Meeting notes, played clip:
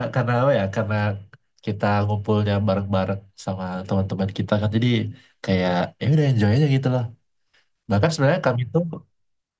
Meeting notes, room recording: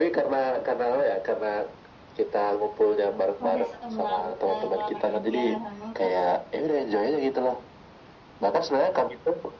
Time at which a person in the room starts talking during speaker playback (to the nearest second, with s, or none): 3 s